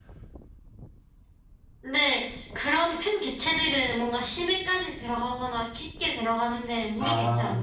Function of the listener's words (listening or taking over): taking over